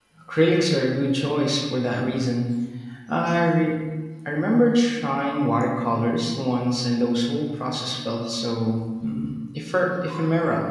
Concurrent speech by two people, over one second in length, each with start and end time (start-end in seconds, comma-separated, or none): none